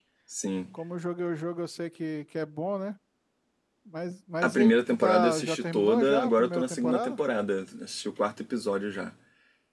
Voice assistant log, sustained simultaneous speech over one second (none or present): present